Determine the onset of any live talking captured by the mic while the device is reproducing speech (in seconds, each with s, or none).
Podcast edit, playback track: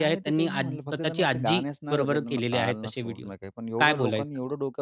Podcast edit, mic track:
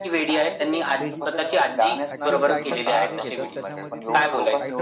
1.0 s